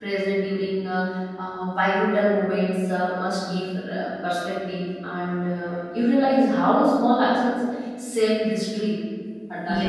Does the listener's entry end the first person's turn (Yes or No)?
Yes